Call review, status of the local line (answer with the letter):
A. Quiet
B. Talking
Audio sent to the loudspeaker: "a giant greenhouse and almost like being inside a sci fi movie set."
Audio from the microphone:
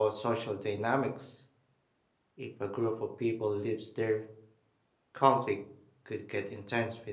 B